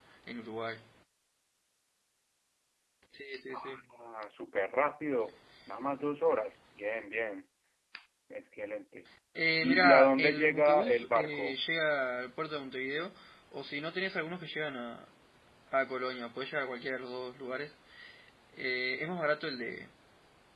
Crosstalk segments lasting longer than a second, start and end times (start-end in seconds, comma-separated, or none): 9.6-11.5